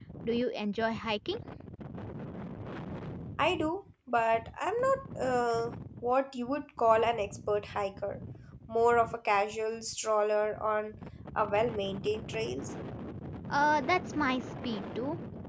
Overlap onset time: none

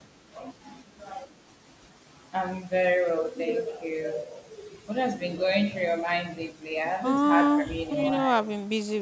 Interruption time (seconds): 7.0 s

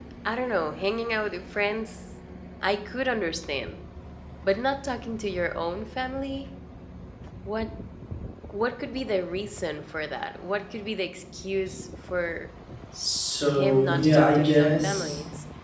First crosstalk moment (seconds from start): 13.5 s

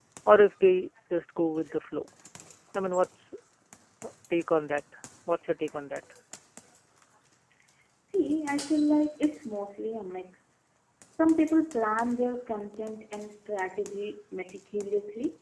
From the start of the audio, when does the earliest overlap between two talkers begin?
none

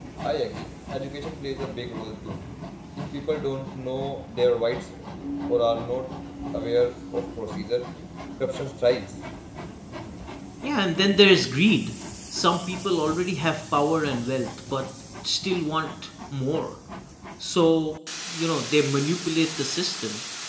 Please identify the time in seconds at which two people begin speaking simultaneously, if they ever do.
none

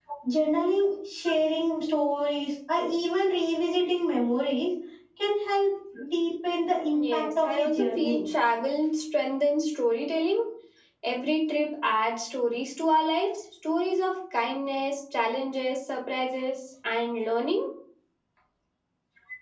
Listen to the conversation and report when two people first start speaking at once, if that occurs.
7.0 s

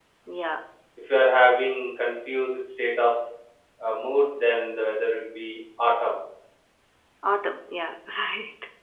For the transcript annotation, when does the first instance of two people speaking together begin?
none

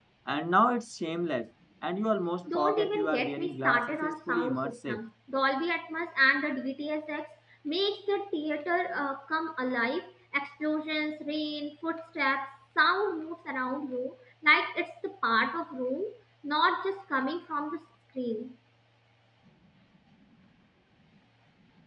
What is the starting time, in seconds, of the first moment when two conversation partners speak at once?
2.5 s

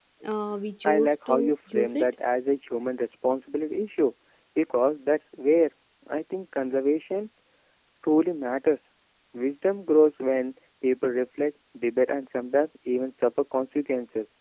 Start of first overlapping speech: 0.8 s

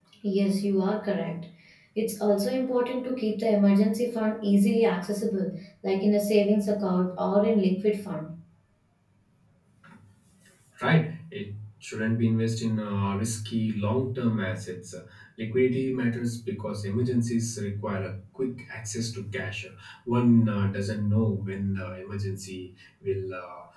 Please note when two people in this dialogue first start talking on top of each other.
none

